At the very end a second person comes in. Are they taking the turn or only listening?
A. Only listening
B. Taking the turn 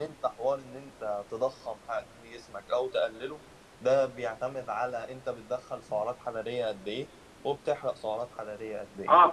B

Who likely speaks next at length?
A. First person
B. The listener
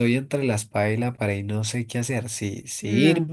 A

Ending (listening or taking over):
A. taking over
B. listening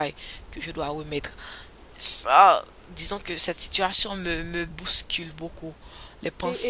A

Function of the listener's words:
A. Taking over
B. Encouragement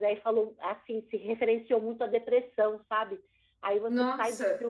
B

